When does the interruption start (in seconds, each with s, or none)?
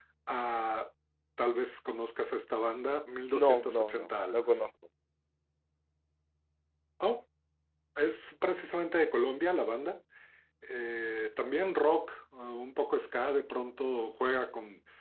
3.3 s